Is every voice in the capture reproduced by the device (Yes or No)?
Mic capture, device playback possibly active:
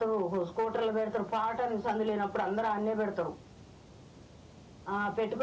Yes